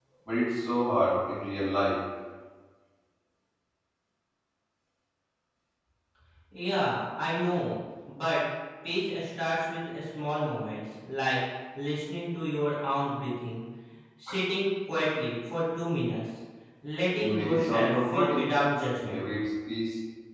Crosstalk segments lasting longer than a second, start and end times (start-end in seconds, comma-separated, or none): 17.2-18.5